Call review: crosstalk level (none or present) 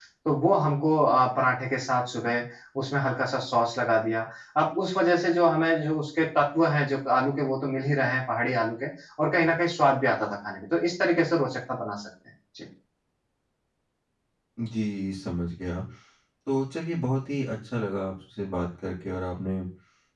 none